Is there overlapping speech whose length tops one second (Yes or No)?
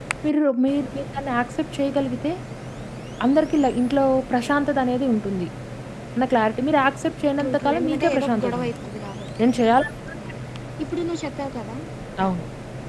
Yes